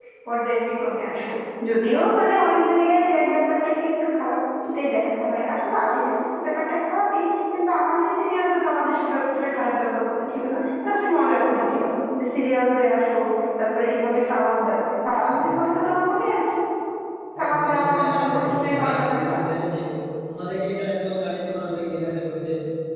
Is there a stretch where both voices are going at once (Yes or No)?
Yes